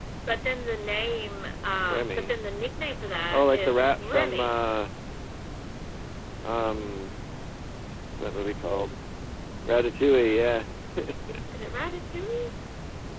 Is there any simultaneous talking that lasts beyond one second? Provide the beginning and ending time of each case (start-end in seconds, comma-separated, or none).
3.3-4.6